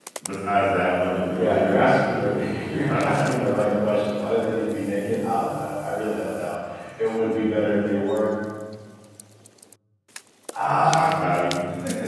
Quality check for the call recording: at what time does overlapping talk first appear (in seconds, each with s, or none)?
1.4 s